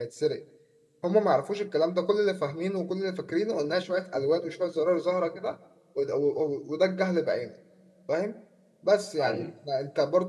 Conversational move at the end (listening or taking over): listening